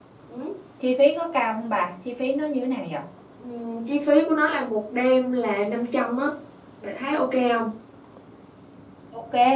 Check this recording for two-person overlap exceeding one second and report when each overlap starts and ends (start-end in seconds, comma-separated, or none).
none